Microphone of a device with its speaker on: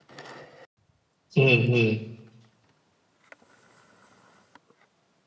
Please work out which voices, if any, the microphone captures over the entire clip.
user only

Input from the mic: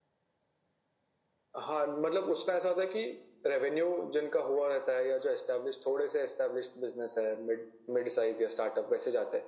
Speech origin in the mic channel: echo only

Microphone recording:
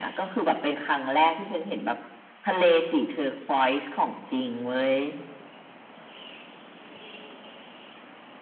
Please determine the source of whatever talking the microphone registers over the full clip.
echo only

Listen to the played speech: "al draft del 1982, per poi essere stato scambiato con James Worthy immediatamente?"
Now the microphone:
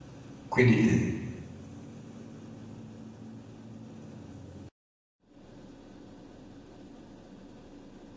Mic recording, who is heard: user only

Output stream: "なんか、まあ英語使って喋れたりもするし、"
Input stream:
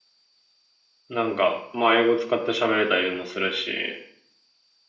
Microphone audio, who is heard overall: echo only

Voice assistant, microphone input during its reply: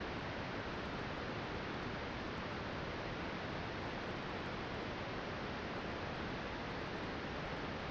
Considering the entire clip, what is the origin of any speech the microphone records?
neither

